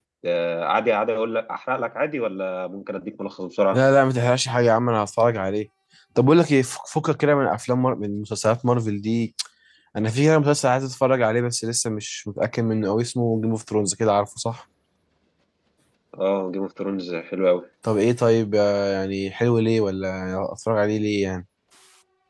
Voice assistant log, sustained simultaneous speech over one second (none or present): none